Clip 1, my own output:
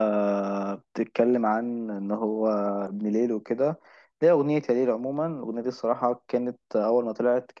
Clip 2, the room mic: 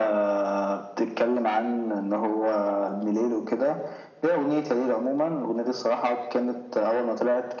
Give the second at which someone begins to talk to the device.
none

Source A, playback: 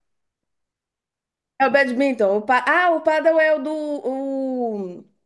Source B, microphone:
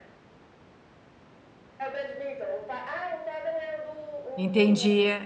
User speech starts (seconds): 4 s

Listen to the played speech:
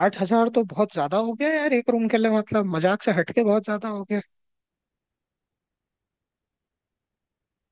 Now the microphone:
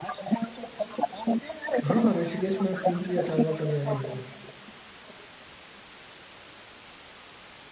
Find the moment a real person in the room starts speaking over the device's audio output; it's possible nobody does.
2 s

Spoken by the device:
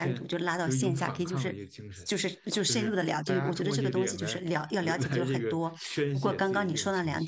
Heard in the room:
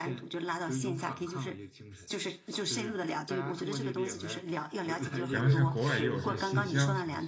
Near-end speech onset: 5 s

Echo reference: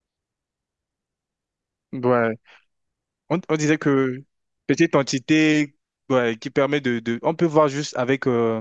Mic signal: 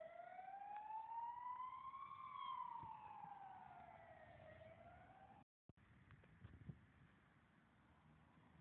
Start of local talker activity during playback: none

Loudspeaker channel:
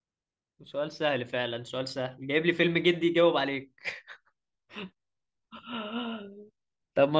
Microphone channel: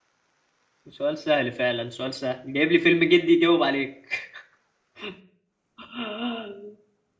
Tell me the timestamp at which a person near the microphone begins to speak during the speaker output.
none

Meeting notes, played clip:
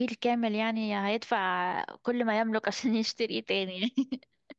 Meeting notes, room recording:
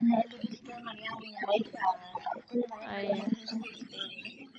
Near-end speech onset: 3 s

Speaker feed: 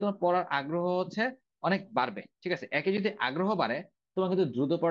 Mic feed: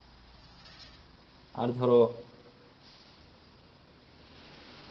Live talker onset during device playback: 2 s

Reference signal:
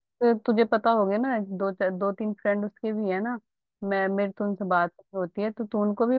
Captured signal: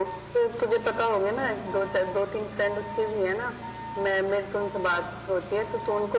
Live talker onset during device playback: none

